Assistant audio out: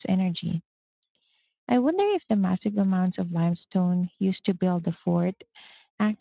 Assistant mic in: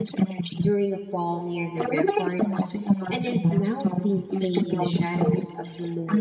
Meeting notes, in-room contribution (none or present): present